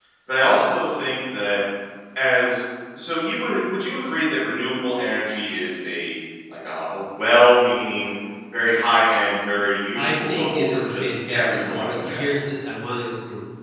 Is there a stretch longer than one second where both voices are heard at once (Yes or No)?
Yes